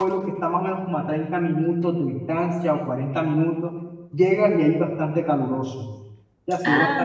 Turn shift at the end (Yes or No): No